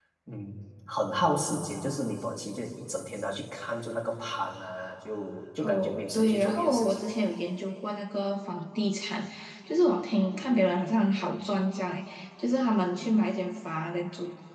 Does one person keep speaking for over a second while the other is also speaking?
Yes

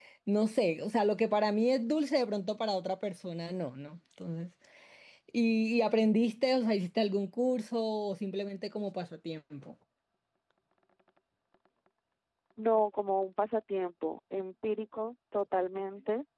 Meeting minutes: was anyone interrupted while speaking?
No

